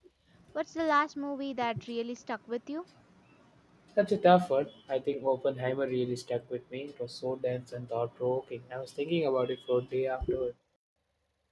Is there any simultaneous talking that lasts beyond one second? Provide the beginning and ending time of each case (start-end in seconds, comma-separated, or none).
none